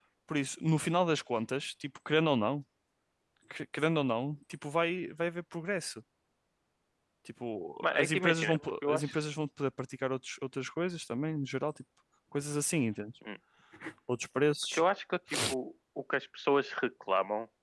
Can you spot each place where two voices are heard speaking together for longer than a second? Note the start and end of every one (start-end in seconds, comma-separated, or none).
7.8-9.2